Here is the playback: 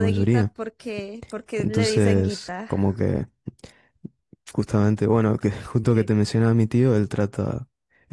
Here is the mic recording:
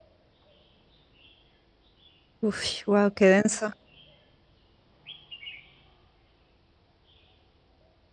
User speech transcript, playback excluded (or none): Uf, wow, qué denso.